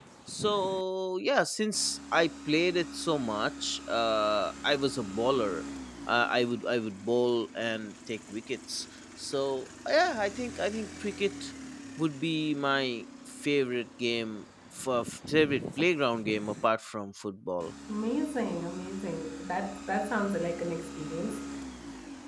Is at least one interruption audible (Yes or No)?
No